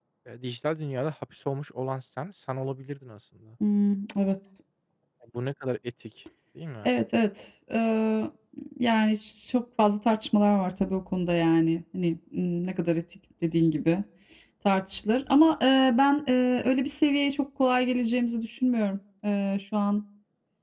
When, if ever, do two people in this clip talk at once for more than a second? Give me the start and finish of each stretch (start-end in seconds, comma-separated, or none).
none